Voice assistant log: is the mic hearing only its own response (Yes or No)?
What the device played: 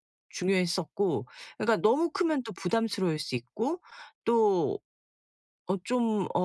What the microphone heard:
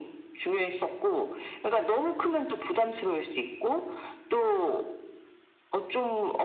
Yes